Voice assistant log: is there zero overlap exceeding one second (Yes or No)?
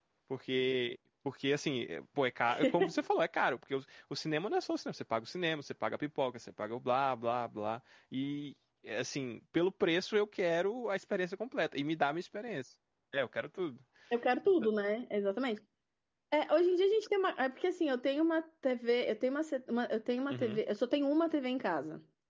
Yes